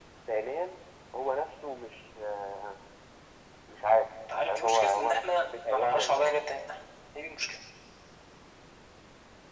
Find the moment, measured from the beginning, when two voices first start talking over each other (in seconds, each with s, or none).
4.3 s